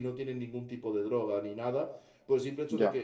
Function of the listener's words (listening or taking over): listening